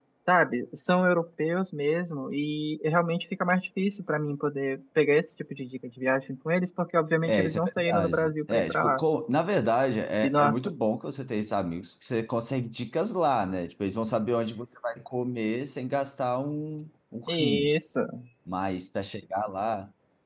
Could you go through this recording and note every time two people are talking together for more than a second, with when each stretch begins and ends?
7.2-9.0

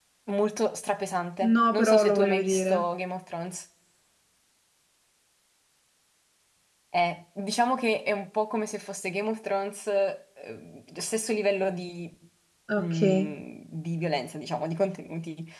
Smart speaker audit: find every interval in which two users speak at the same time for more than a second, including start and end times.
1.5-2.8

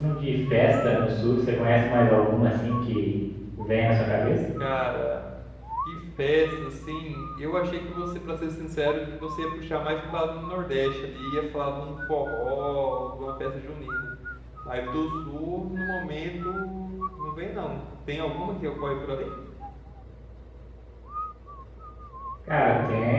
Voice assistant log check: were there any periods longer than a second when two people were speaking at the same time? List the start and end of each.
none

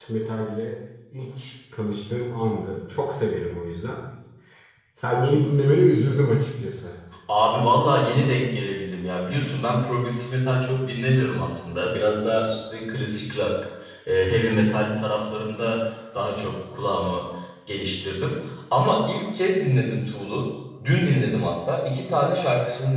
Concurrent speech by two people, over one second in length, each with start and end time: none

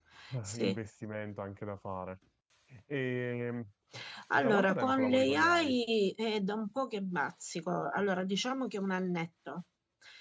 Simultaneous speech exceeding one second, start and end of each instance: 4.4-5.8

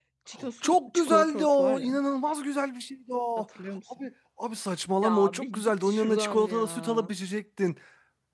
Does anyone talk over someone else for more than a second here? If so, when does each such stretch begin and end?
0.6-1.9, 5.0-7.1

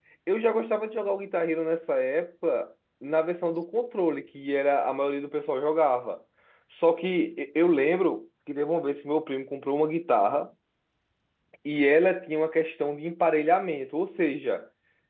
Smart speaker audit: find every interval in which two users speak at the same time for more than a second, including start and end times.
none

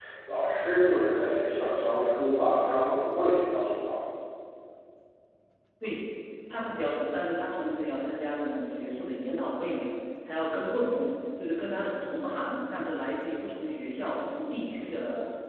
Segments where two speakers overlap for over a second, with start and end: none

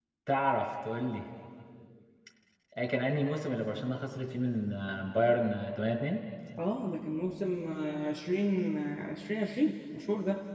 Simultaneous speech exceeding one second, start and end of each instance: none

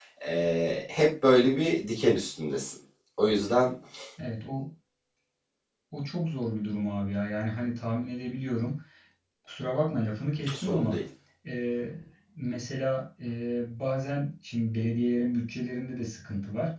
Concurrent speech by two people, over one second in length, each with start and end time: none

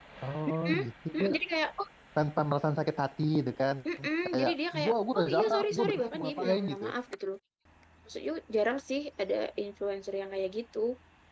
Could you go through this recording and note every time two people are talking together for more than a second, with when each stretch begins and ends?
4.2-6.8

